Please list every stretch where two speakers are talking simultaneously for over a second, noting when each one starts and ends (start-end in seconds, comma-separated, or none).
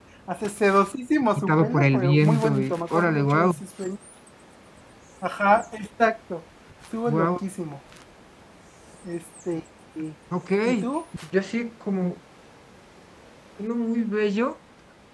1.4-3.5